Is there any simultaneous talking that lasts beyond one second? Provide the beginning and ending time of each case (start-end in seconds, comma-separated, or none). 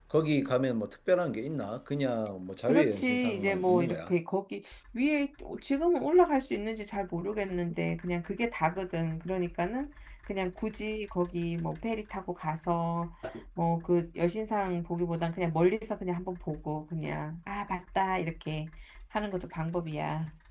2.7-4.1